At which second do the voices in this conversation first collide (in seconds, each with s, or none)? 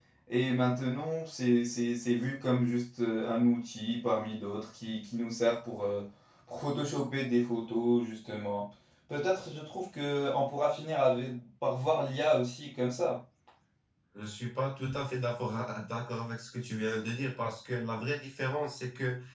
none